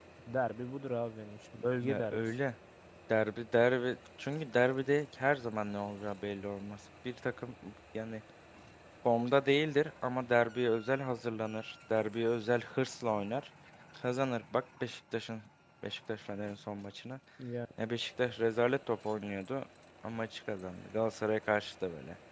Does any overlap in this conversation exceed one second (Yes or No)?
No